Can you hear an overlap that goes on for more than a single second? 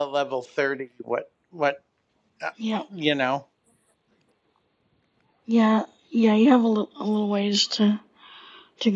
No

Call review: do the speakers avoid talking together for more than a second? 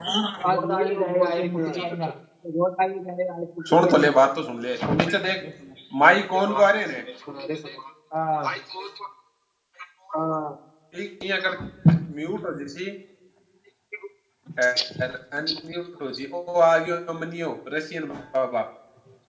No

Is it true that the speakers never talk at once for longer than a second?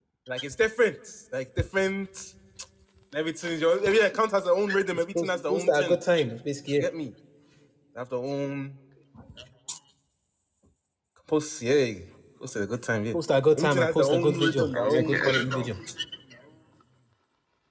No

